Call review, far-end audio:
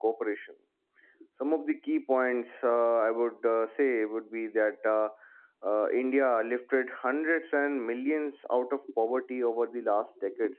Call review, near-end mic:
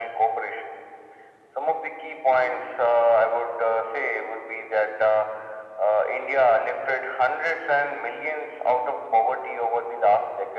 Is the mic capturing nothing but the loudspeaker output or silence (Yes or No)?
Yes